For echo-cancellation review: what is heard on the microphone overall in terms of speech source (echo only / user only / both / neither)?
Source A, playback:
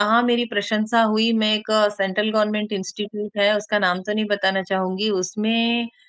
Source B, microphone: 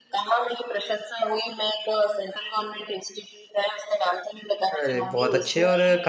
both